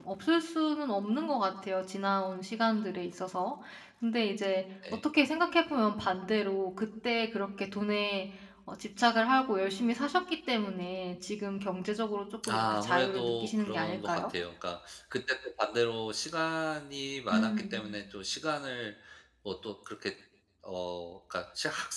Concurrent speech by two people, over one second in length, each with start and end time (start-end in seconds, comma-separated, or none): 12.5-14.3